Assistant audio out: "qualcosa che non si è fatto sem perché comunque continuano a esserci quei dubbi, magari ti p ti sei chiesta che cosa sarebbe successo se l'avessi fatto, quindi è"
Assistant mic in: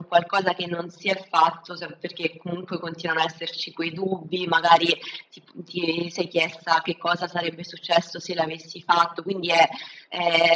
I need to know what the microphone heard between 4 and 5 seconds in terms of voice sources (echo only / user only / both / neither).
echo only